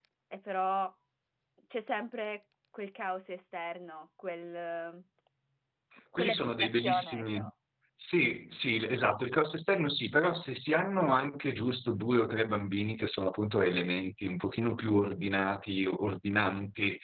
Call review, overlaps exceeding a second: present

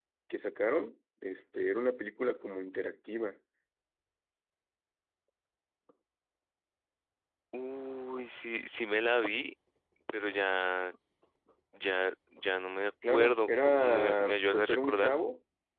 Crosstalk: present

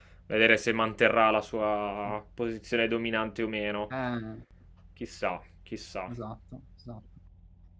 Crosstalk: none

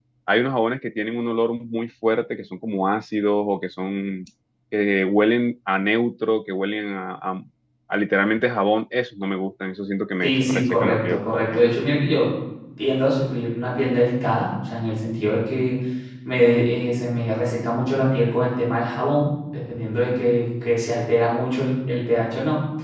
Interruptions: present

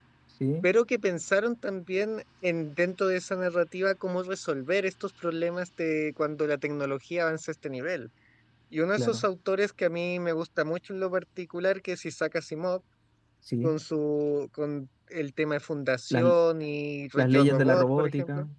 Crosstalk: present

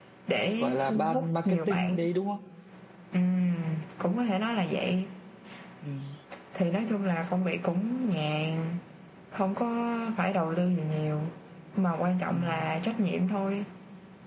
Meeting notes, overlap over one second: present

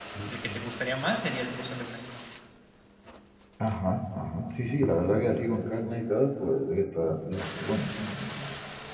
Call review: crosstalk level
none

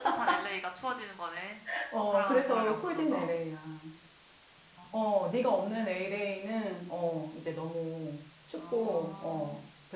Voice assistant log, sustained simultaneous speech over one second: present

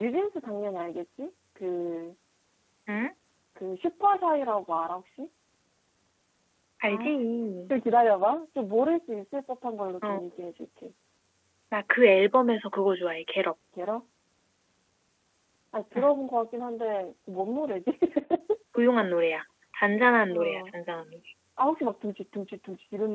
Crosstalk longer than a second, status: none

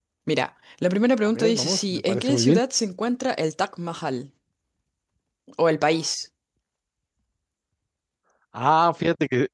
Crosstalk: present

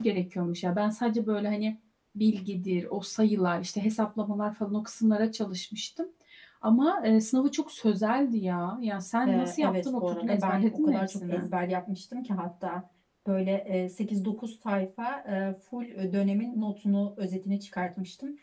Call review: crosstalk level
present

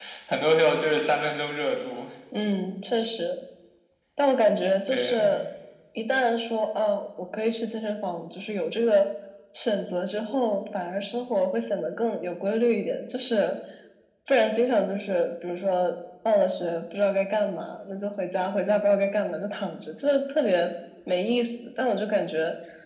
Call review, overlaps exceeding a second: none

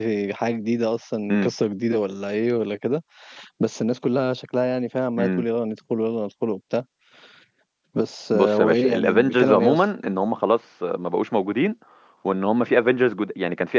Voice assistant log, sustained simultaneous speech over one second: present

